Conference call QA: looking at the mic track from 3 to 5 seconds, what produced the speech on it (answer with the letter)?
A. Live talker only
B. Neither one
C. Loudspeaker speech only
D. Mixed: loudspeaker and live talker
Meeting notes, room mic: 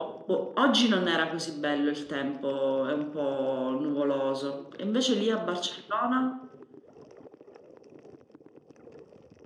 C